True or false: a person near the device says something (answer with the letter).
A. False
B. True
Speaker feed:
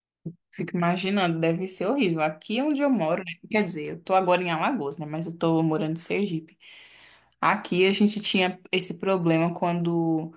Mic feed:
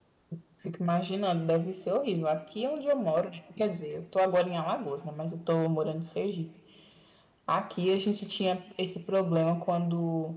A